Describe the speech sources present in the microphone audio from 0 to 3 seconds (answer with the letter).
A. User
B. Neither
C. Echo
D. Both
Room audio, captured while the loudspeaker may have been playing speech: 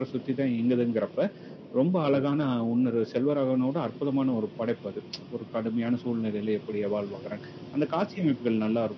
C